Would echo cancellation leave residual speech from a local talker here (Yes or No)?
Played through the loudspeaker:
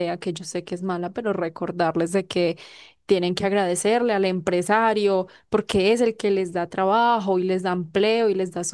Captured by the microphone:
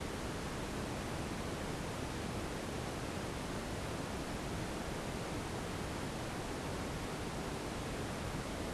No